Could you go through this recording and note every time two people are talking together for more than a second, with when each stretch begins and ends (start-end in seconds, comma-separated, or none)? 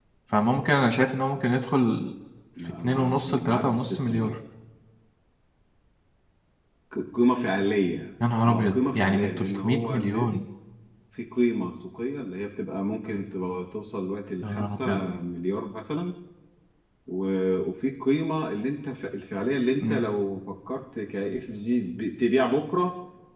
2.8-4.4, 8.4-10.4